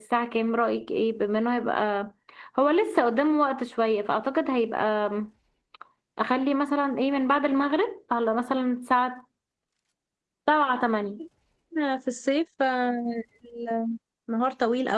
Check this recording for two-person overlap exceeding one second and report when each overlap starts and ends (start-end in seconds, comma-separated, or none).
none